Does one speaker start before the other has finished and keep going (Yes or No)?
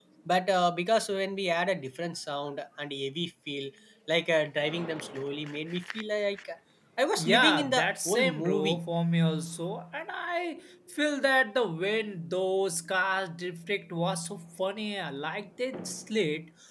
Yes